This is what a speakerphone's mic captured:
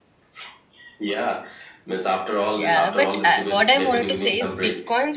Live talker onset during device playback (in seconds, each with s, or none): 2.5 s